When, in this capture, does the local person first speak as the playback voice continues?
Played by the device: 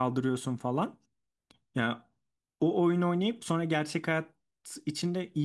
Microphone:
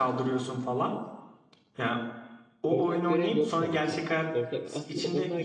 2.7 s

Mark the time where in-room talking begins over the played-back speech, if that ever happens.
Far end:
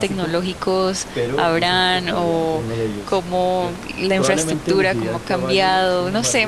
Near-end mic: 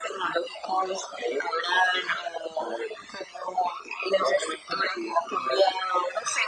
none

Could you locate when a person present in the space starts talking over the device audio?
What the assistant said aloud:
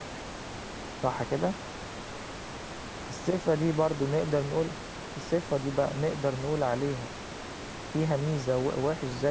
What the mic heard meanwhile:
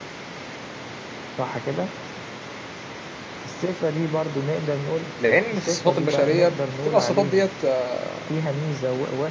5.2 s

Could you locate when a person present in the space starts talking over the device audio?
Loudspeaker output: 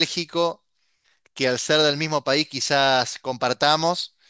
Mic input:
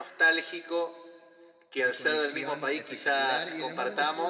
1.8 s

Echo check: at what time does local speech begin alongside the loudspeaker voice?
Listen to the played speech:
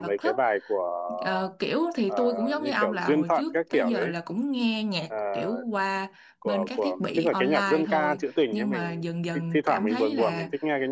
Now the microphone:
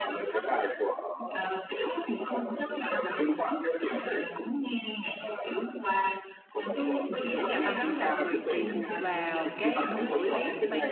6.7 s

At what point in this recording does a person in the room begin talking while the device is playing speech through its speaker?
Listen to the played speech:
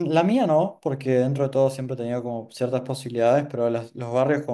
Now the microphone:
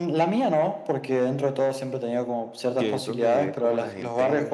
2.8 s

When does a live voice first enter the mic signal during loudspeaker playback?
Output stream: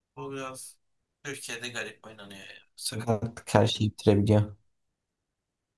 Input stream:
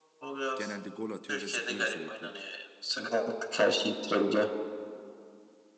0.6 s

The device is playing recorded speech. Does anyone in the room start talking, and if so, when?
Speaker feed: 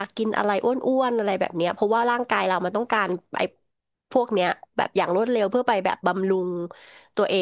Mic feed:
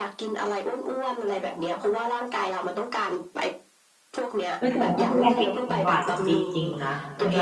4.6 s

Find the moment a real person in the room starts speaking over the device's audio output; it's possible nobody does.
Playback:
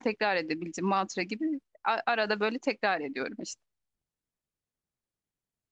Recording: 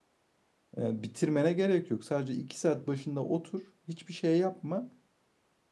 0.8 s

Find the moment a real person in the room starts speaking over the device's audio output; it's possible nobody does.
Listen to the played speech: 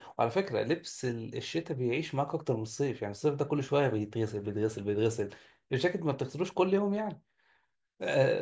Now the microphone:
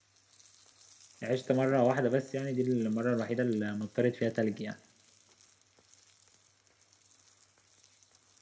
1.2 s

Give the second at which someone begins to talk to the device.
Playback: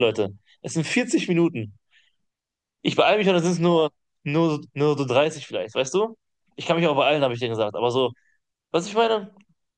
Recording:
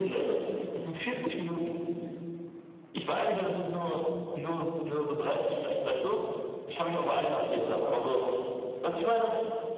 none

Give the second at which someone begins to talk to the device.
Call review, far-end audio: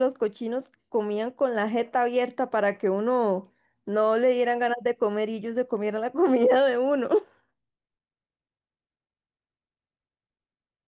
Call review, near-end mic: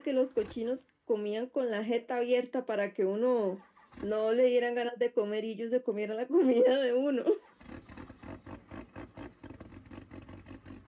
none

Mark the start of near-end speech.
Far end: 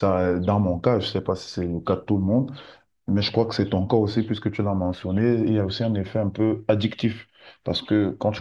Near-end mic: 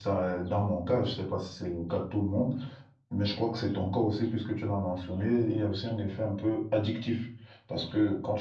none

